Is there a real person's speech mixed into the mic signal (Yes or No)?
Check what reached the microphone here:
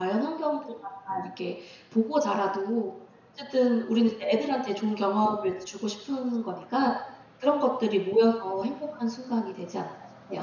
Yes